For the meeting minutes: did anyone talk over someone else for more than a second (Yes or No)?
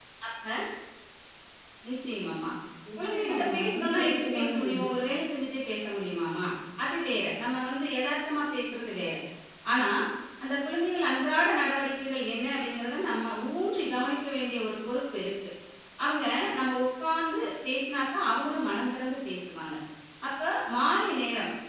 Yes